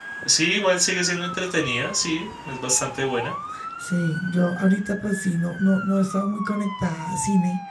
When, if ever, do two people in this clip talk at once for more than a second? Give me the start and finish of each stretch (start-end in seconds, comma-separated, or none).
none